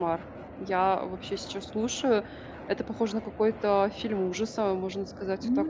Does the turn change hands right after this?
Yes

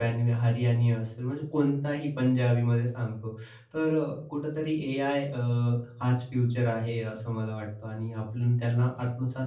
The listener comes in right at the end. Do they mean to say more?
No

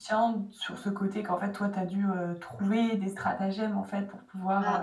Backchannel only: No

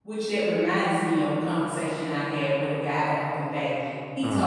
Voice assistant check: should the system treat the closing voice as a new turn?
No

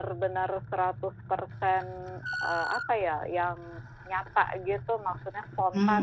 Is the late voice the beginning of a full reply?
Yes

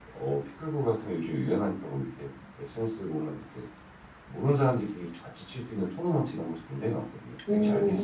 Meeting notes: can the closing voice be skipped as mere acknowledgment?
No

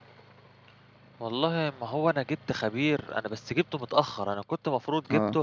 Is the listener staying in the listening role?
Yes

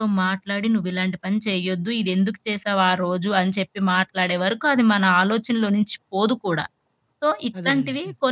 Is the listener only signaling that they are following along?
Yes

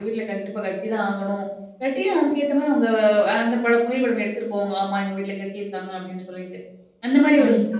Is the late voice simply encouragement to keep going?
Yes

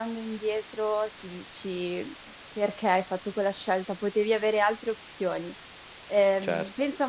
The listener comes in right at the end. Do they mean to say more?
No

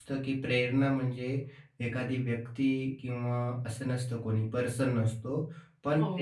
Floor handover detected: Yes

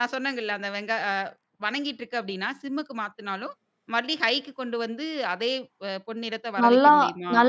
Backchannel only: No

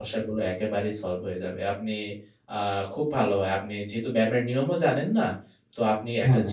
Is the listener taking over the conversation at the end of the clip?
No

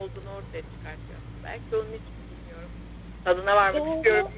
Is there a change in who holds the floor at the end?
Yes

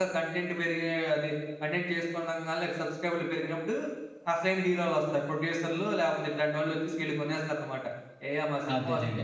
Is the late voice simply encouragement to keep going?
No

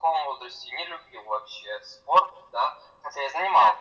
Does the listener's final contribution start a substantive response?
No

